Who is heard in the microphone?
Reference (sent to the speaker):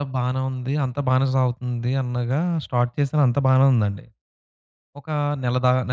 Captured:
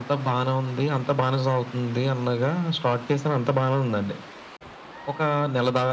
echo only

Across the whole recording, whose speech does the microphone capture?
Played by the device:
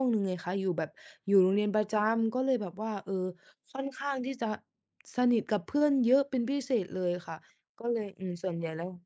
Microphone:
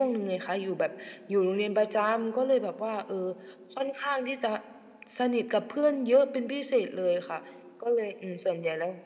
echo only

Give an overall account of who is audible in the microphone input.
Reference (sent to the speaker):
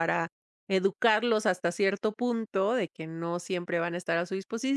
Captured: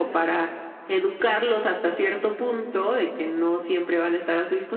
echo only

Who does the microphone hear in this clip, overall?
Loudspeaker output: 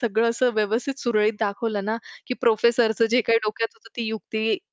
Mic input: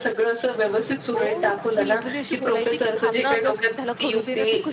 both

